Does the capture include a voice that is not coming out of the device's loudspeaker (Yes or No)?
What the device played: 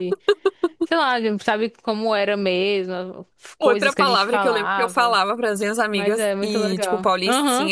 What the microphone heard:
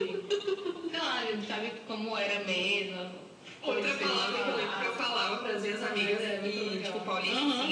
No